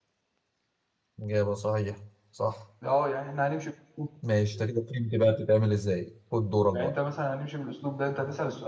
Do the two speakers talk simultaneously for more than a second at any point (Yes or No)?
No